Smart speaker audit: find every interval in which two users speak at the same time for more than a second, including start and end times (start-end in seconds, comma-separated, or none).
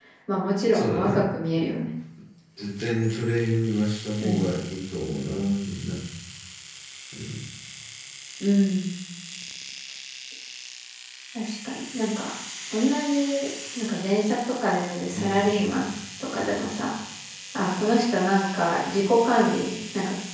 none